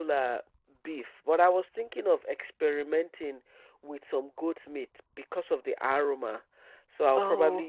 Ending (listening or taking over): listening